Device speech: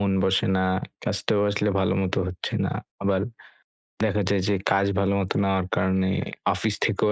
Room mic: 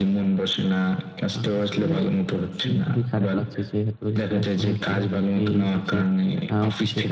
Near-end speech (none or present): present